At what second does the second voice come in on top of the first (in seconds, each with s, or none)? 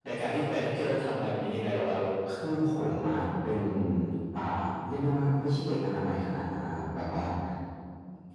none